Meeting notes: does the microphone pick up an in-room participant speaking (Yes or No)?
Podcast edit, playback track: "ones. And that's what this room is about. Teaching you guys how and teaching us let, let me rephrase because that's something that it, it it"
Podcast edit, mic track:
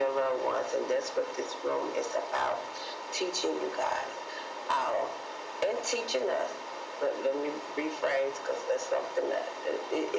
No